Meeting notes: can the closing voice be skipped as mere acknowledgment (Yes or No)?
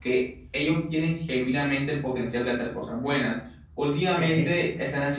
Yes